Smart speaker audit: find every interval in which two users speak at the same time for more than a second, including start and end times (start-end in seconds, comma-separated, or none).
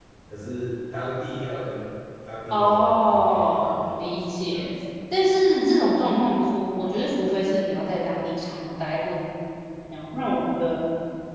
2.5-4.7